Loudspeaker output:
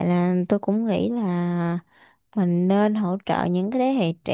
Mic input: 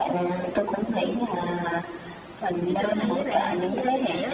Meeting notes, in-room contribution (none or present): present